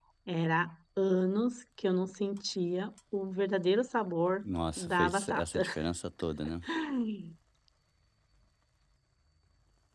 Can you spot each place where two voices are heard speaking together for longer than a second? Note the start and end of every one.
4.4-5.6

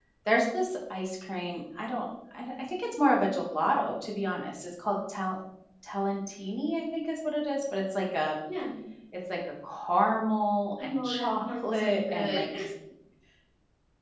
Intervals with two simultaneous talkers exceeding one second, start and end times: 10.8-12.5

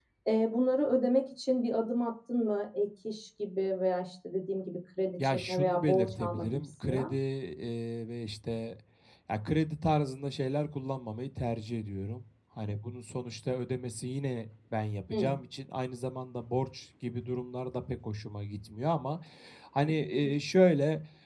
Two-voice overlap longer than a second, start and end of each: 5.2-7.1

